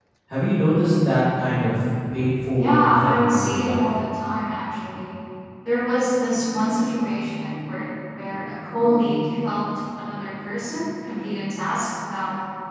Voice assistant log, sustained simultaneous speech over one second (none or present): present